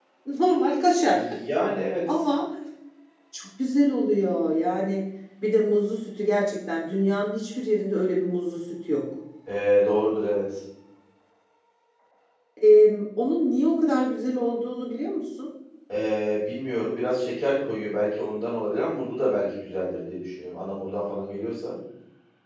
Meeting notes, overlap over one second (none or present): none